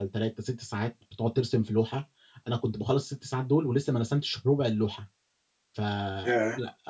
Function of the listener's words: listening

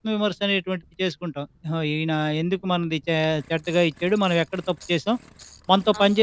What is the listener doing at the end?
taking over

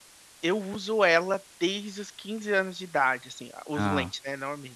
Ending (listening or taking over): listening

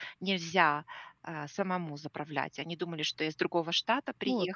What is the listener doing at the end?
listening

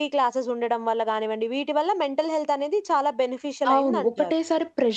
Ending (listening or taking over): taking over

